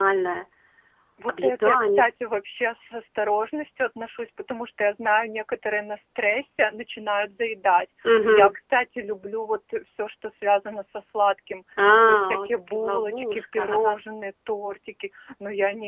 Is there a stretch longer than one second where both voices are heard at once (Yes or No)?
Yes